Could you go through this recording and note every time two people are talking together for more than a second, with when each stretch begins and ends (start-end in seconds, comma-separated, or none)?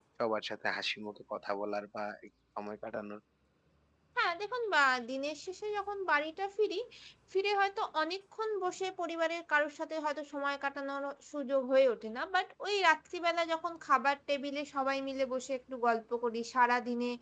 none